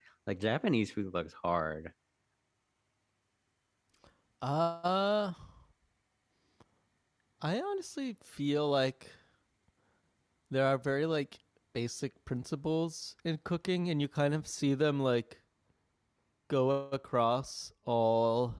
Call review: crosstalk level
none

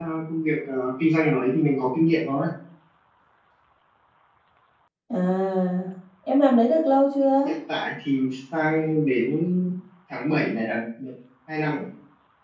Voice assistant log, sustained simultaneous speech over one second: none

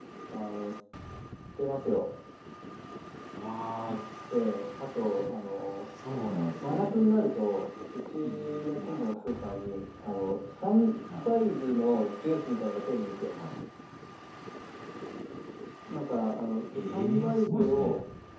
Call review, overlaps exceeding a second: present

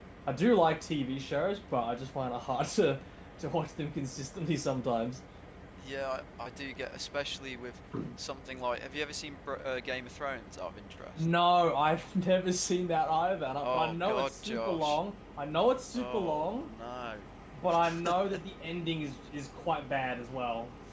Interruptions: present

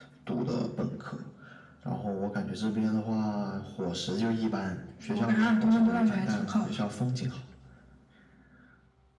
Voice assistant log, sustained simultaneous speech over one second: present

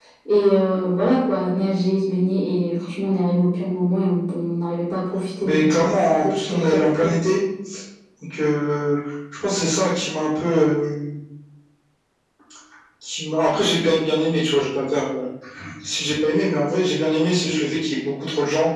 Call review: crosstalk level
present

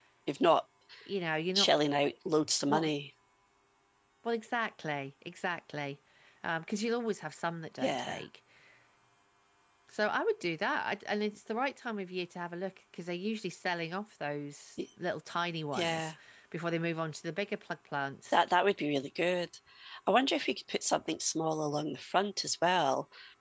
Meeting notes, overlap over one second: none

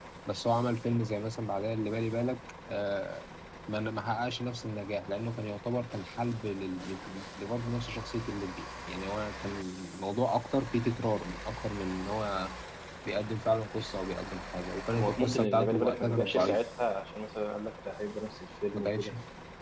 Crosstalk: present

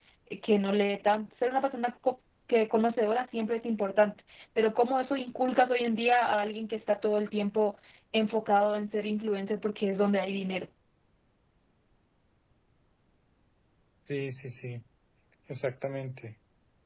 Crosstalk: none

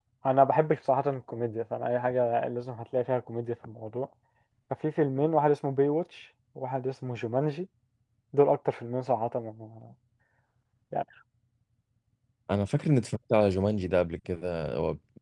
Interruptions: none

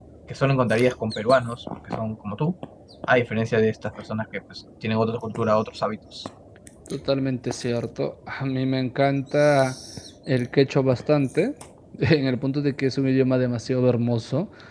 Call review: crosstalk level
none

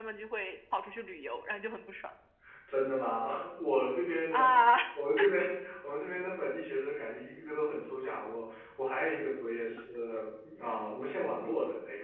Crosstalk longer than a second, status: none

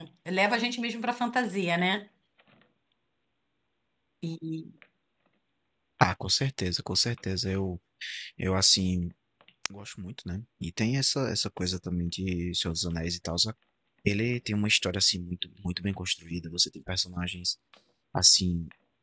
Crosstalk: none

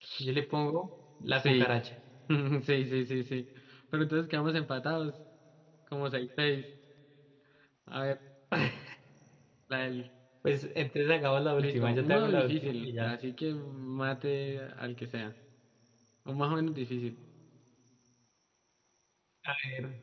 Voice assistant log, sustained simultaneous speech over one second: present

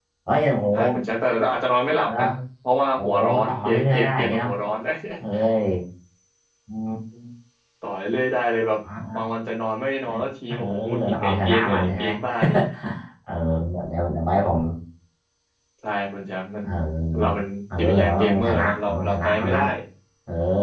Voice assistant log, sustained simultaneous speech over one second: present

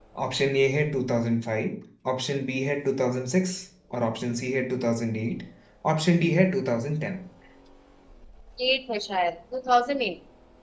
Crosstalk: none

